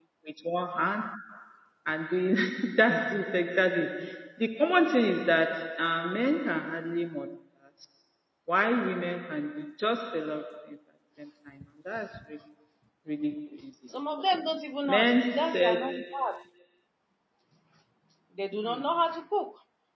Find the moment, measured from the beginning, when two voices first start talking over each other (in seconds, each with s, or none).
14.9 s